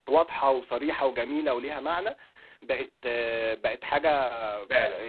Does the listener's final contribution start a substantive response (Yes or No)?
No